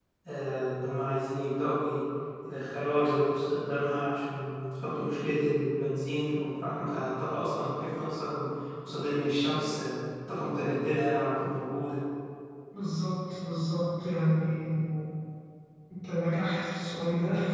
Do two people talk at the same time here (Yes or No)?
No